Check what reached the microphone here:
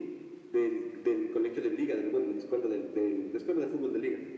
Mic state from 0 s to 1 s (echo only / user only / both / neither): echo only